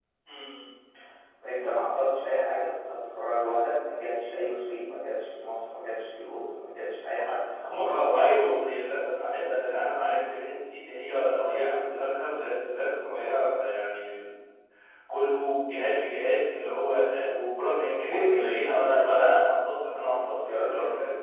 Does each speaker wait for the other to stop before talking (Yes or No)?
No